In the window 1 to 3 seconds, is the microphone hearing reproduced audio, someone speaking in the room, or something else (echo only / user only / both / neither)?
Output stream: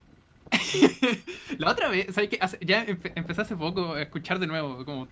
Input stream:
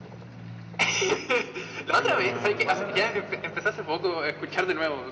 both